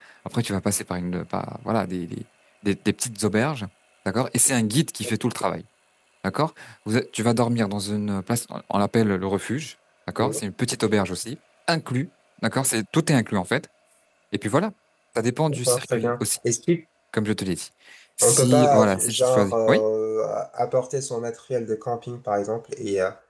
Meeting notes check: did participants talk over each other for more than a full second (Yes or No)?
Yes